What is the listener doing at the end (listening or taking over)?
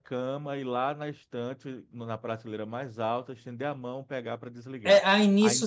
taking over